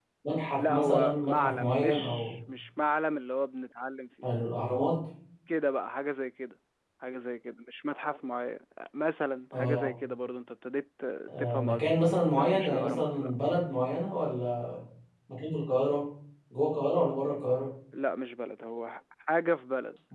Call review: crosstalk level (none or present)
present